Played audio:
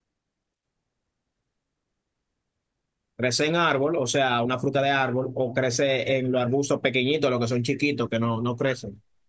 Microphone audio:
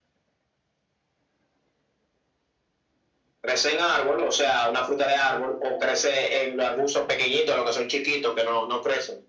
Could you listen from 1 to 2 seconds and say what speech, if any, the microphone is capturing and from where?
neither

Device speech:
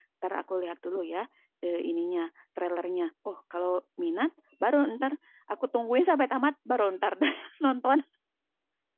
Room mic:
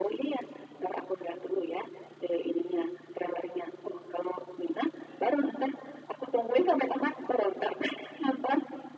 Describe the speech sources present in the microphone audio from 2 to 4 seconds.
echo only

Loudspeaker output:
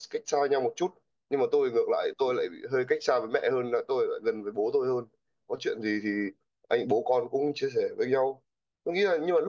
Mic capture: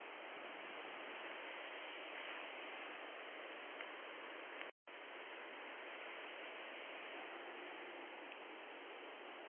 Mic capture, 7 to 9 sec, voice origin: neither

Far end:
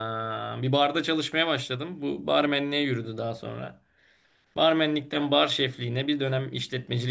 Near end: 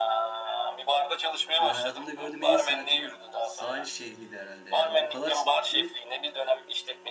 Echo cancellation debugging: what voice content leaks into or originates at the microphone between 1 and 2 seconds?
both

